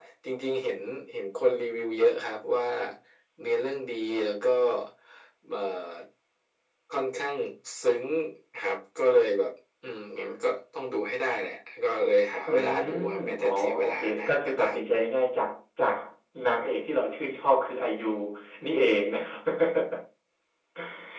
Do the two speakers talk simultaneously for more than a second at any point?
Yes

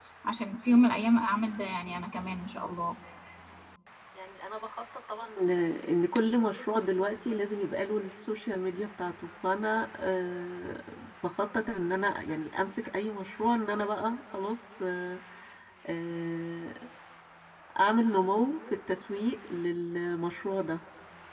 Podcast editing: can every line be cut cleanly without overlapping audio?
Yes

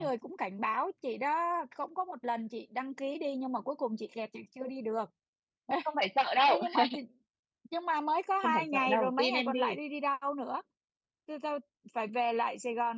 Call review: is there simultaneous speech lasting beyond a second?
Yes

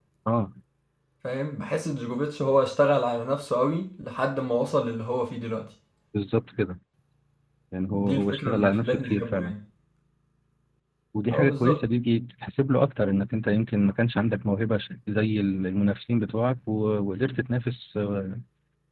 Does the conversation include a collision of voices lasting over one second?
Yes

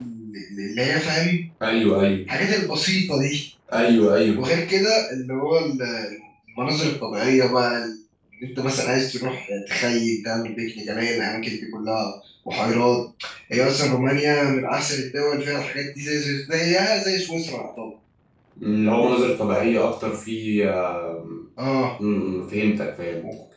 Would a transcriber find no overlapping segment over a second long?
Yes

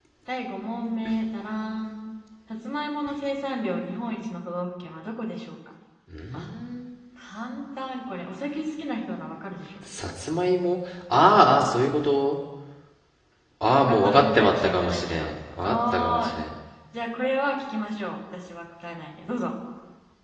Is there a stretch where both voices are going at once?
Yes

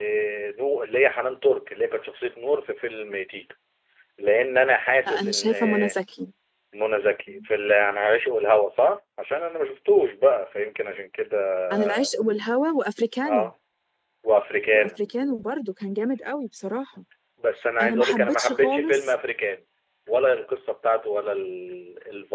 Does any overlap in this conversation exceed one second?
Yes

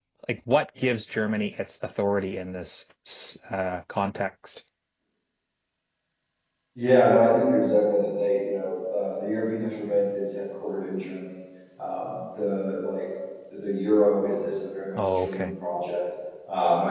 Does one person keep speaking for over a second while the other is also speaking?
No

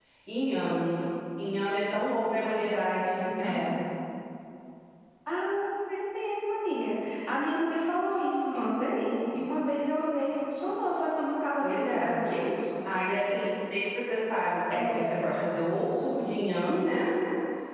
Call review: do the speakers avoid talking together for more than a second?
Yes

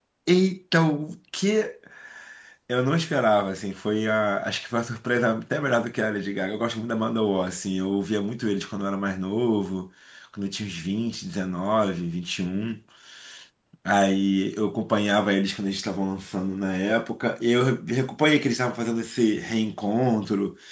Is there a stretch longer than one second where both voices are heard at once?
No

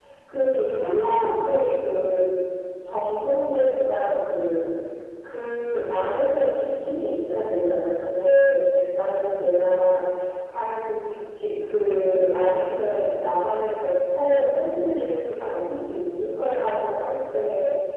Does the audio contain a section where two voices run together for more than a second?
No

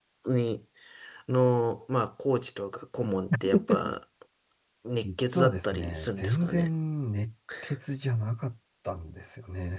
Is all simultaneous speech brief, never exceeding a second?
No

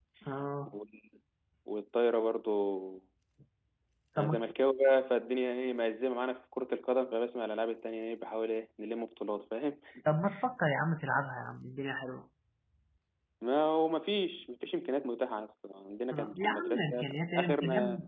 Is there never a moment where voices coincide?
No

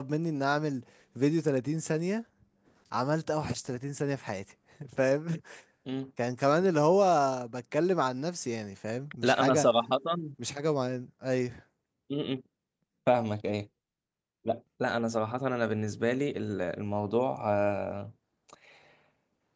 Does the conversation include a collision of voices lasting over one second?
No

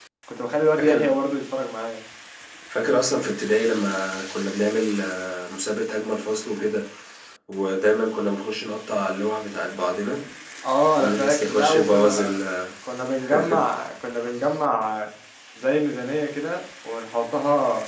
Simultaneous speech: Yes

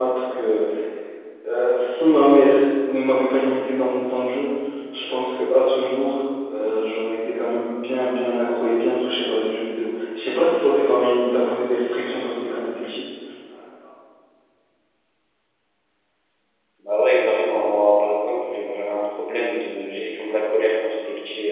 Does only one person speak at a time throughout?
Yes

